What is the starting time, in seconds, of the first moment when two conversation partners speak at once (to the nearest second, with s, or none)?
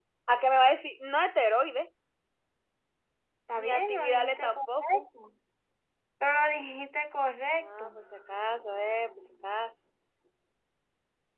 4 s